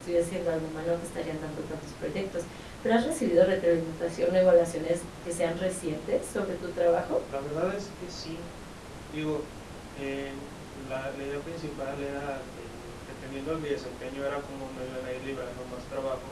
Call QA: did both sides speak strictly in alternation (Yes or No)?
Yes